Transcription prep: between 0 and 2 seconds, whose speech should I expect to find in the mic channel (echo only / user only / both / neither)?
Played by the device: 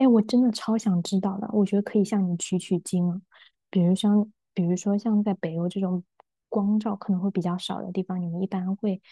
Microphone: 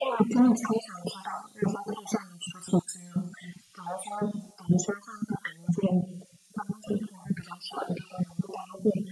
echo only